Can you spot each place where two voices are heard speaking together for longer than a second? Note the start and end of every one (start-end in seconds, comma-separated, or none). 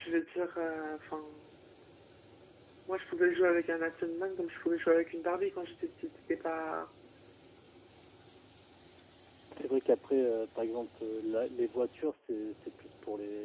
none